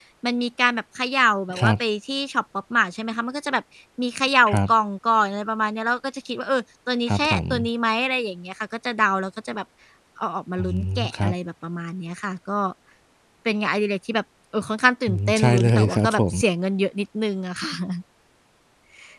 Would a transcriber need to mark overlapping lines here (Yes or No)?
Yes